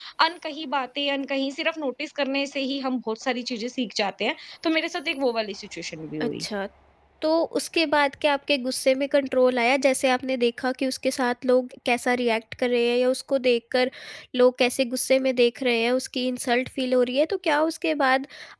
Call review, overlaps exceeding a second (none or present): none